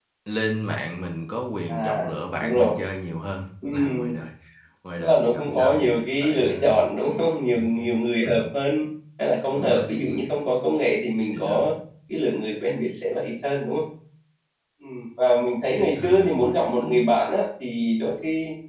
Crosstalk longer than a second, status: present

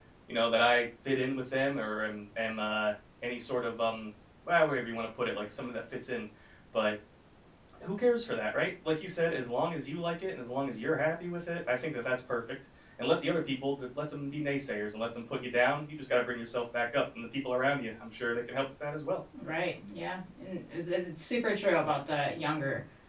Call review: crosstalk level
none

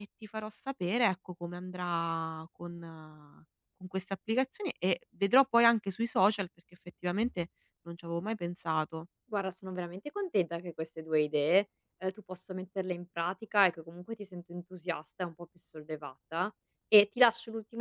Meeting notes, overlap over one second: none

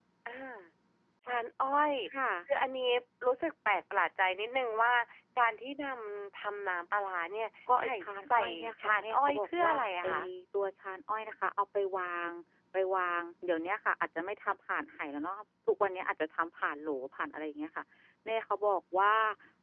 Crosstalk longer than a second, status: present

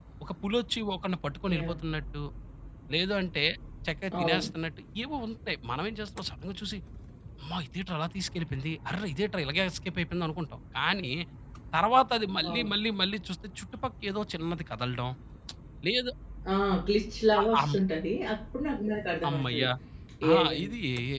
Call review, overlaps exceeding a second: none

